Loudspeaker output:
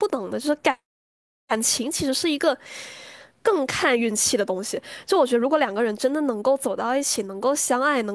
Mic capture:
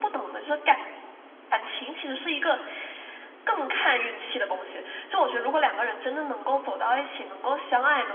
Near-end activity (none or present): none